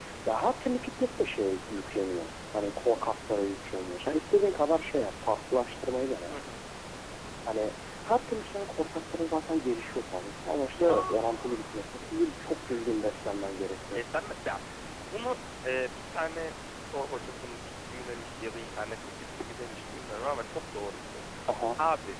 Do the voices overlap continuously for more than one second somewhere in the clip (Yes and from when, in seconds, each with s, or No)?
Yes, from 10.8 s